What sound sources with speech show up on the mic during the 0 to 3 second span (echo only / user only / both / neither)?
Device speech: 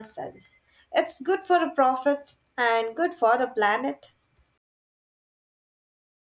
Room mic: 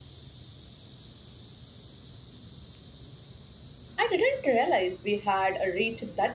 neither